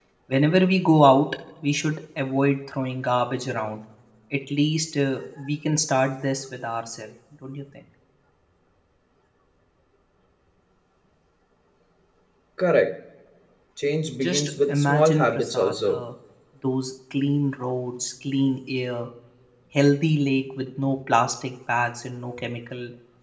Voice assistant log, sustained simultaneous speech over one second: present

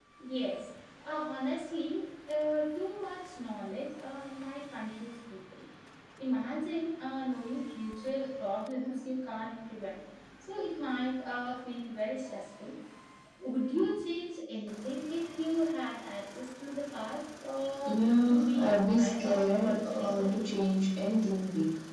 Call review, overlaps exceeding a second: present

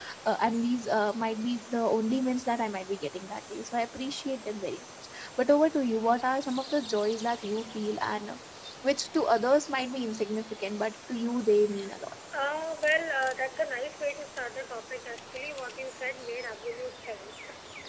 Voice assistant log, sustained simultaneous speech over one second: none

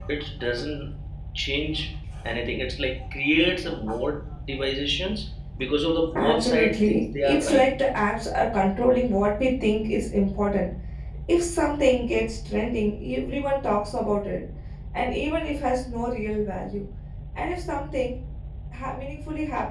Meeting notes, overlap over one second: present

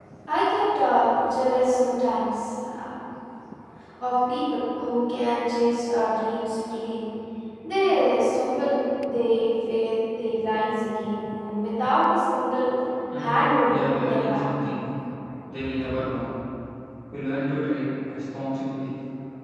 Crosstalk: present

